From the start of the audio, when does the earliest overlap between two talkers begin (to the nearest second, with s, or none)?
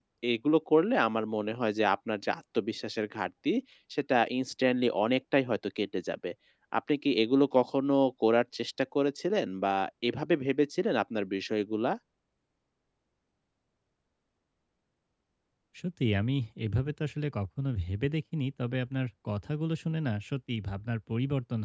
none